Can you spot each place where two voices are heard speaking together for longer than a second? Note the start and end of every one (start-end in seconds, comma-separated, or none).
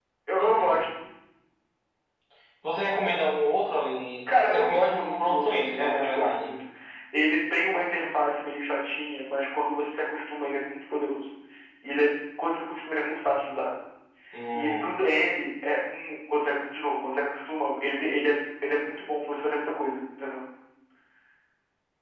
4.3-6.5